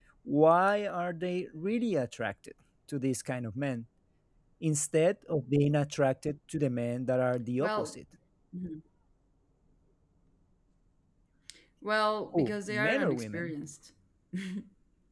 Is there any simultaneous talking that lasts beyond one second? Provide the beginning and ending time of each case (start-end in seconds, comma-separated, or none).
12.3-13.5